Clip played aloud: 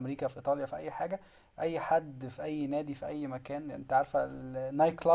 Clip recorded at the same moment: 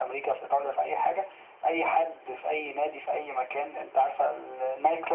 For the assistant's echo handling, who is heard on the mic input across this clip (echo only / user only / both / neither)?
echo only